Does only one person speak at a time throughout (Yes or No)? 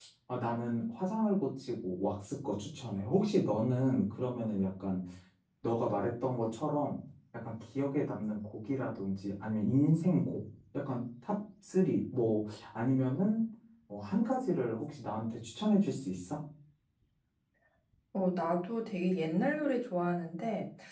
Yes